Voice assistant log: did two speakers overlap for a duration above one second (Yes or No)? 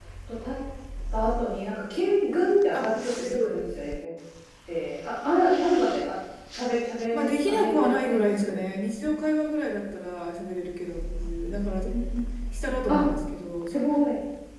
Yes